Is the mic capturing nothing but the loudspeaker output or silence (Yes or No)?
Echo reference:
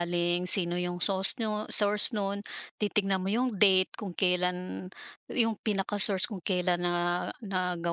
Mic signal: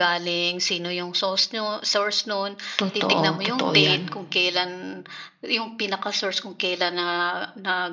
No